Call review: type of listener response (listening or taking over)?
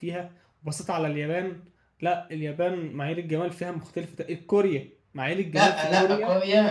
taking over